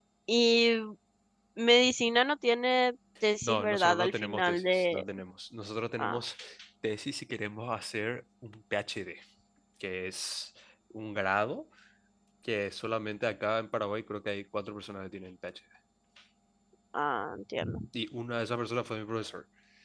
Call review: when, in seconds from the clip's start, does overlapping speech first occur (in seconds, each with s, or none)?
3.4 s